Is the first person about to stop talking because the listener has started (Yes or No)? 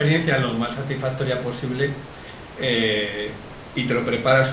No